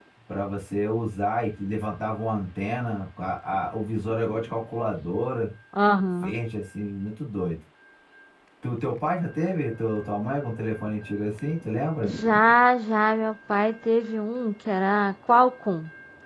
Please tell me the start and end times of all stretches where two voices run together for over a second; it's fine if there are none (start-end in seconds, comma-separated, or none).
none